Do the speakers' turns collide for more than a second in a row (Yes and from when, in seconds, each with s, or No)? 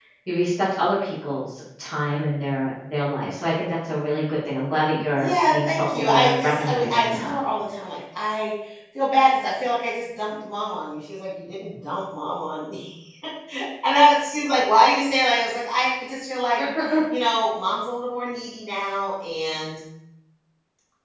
Yes, from 5.2 s